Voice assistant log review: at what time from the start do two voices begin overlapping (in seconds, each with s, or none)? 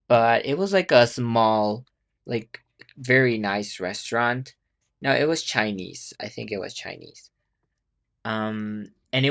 none